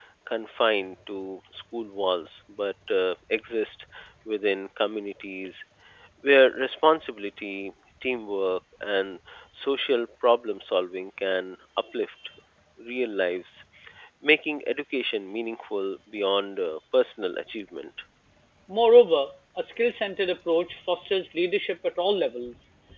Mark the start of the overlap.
none

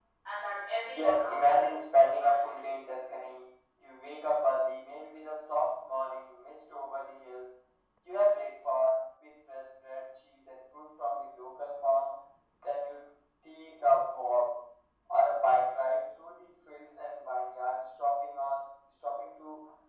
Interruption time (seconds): 0.8 s

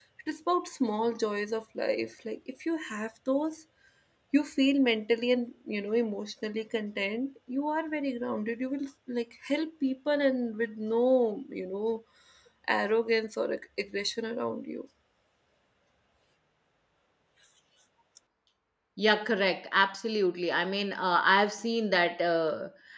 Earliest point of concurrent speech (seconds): none

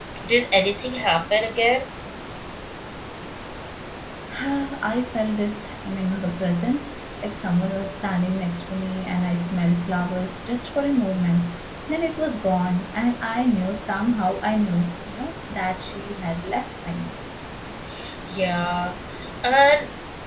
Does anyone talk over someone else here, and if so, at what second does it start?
none

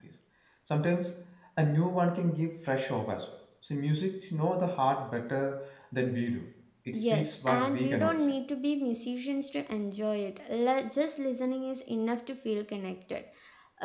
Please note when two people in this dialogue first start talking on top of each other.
6.9 s

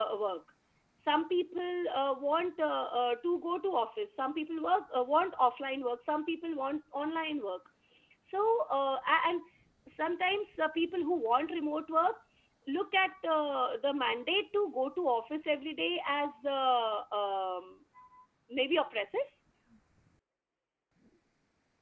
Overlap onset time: none

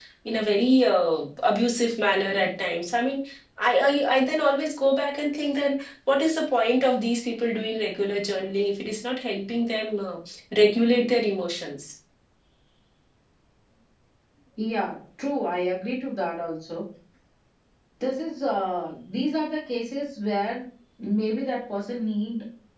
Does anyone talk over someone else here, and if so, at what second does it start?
none

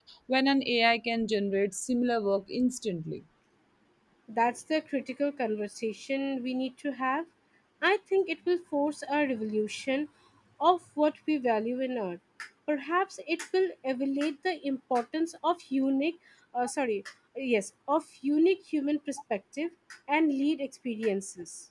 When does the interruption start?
none

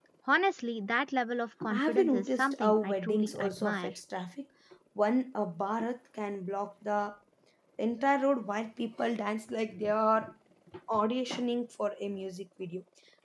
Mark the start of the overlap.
1.6 s

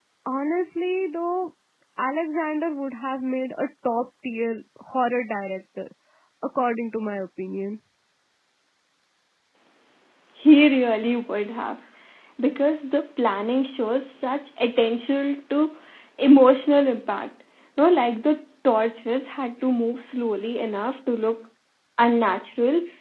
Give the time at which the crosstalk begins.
none

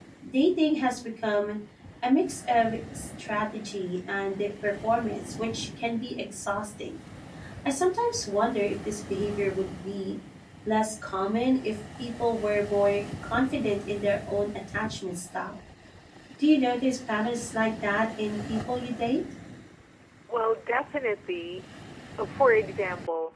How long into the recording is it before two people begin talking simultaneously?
none

